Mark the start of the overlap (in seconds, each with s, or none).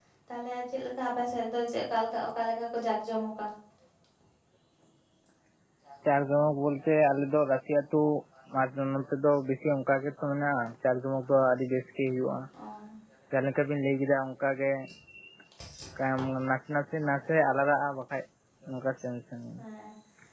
none